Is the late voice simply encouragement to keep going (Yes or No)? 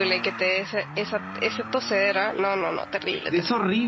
No